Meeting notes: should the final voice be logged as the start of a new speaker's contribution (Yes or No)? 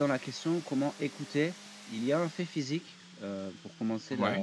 No